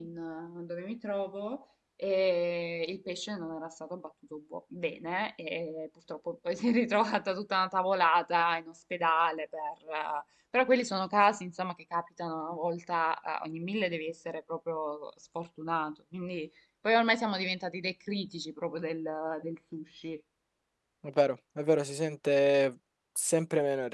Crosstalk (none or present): none